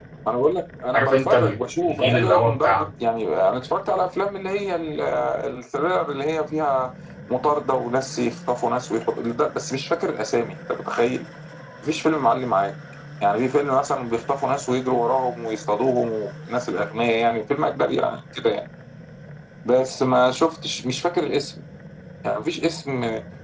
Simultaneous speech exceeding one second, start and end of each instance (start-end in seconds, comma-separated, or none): 0.9-2.8